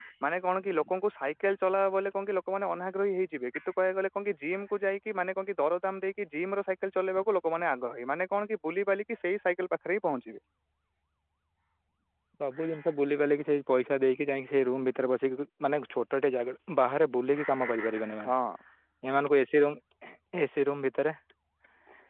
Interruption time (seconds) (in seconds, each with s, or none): none